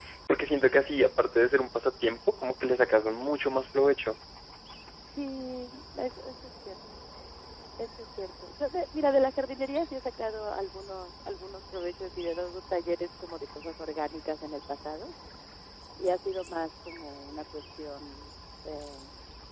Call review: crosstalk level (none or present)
none